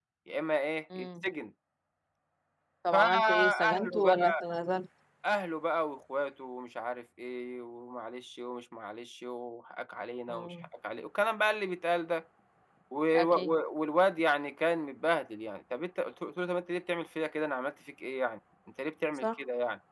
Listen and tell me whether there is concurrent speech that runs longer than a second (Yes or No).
Yes